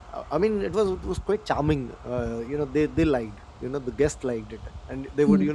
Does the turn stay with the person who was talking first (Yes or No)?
Yes